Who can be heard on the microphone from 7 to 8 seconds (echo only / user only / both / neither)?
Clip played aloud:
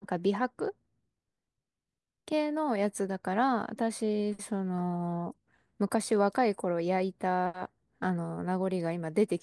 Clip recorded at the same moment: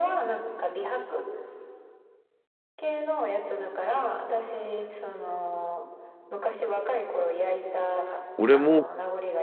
echo only